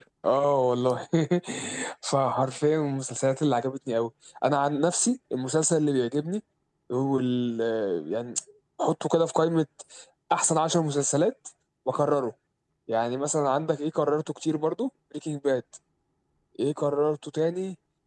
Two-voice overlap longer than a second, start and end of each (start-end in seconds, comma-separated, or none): none